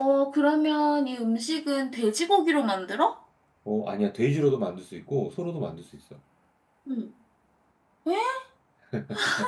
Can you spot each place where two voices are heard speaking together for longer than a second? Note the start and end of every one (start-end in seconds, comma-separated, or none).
none